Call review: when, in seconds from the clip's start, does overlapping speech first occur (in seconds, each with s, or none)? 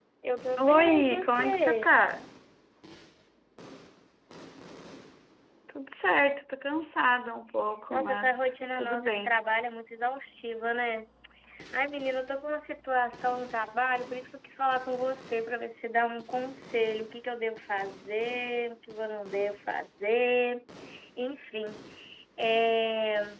0.6 s